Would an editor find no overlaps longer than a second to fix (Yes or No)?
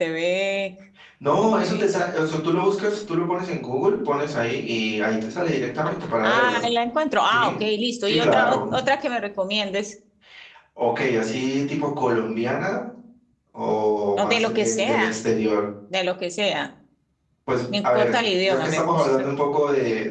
No